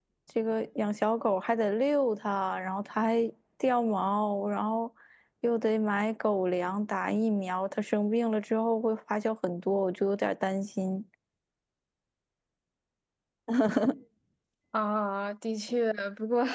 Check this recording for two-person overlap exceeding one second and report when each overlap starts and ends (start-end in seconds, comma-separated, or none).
none